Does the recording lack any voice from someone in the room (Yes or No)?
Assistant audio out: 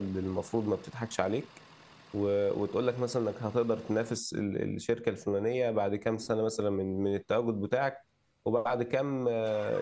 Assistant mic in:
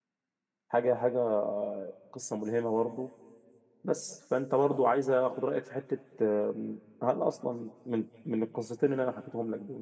No